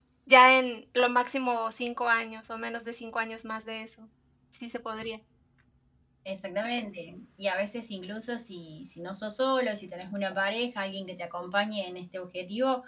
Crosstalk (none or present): none